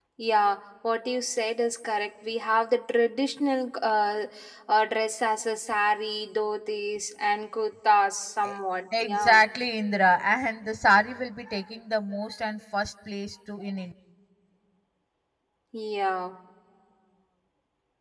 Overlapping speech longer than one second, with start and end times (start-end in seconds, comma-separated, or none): none